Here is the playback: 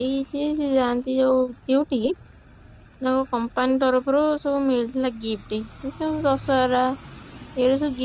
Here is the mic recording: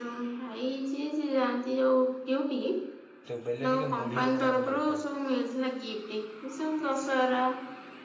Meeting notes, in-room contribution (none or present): present